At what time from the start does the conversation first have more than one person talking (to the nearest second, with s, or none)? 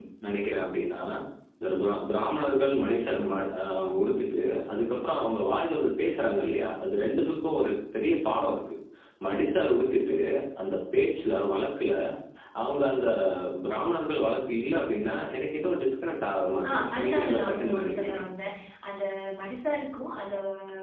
17 s